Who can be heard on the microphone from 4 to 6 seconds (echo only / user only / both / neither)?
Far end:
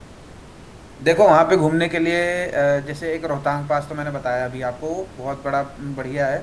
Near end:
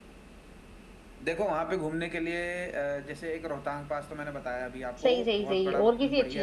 both